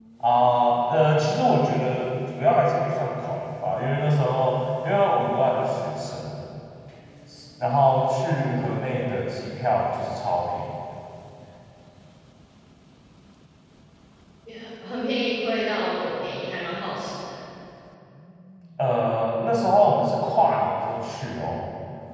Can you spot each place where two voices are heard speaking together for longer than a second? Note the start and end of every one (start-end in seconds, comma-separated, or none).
none